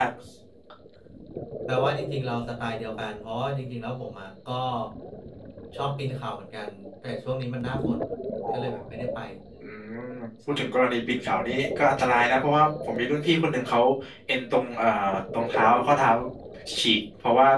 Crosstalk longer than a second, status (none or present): none